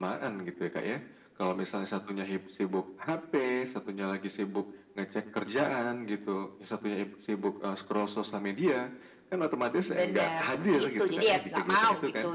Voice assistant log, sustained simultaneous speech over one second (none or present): present